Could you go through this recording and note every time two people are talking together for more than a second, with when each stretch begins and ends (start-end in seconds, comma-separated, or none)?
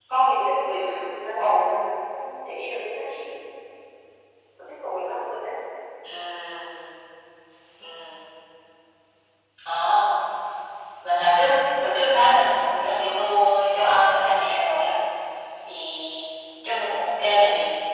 none